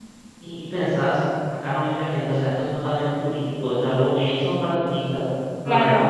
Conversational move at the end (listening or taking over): listening